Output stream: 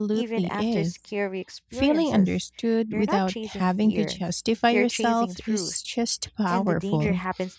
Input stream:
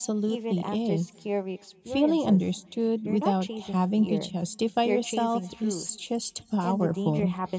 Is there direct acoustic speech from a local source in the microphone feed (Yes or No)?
No